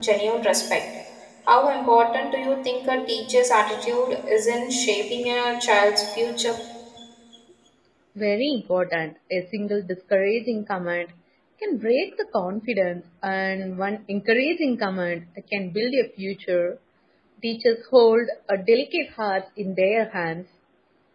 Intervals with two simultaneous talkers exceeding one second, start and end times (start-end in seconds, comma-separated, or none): none